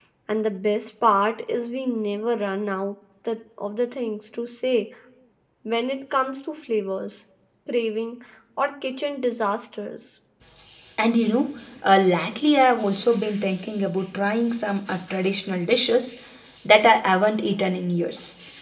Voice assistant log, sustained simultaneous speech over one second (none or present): none